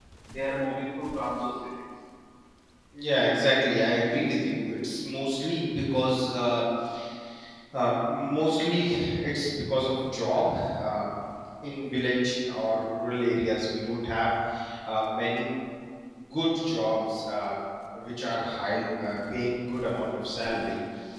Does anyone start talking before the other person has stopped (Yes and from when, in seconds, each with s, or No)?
No